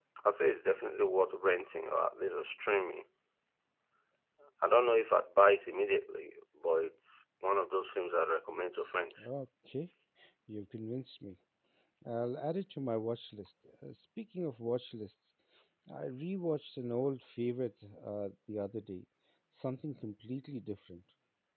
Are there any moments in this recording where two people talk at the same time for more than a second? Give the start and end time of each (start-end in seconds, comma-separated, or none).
none